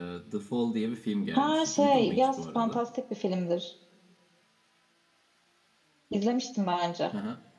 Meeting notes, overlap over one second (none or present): present